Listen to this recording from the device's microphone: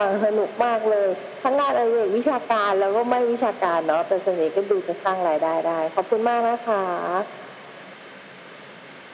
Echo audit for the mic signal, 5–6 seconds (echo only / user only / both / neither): echo only